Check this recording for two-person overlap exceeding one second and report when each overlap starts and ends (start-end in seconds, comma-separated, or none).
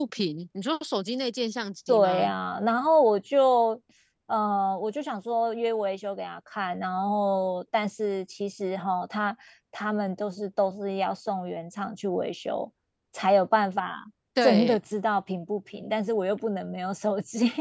none